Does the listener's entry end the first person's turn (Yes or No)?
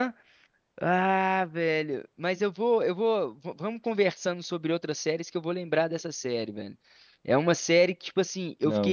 No